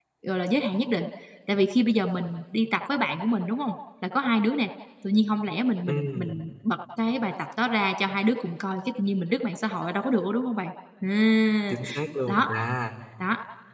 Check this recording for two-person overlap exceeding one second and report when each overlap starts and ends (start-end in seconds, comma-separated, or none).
none